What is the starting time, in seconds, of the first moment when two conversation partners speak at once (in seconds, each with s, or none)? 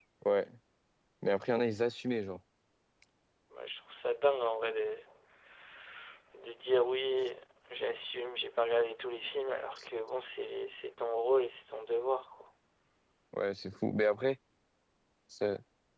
none